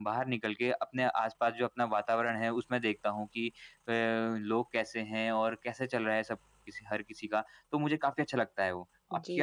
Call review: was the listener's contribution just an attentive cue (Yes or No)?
No